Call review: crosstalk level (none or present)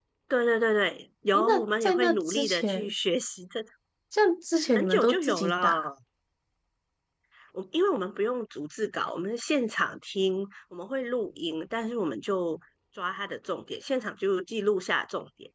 present